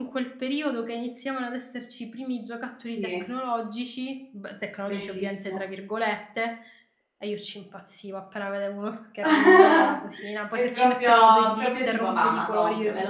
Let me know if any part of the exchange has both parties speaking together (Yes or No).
Yes